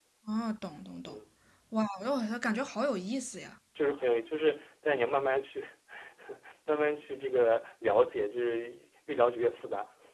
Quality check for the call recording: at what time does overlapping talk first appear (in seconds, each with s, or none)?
none